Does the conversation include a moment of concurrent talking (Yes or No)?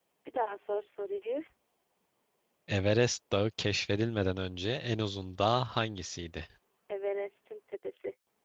No